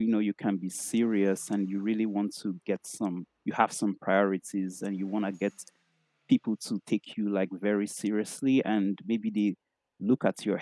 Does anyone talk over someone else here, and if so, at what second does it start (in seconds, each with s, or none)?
none